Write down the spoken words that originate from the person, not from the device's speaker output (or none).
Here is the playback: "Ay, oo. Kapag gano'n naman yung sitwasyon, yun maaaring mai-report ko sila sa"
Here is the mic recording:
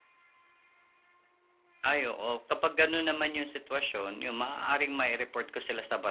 none